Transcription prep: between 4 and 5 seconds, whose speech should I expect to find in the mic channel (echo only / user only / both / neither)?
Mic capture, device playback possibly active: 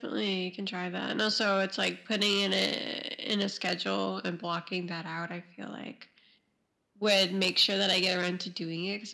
echo only